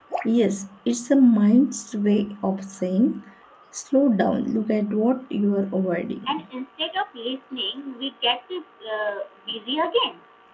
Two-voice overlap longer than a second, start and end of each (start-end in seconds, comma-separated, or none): none